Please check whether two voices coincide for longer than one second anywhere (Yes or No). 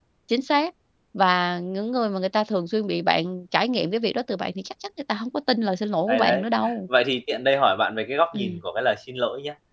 No